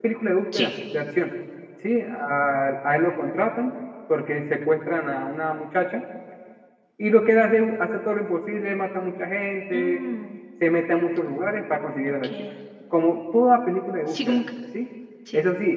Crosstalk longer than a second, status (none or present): none